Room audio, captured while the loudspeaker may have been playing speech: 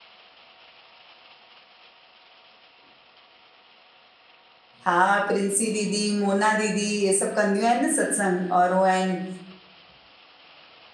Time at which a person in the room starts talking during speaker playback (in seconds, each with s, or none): 4.9 s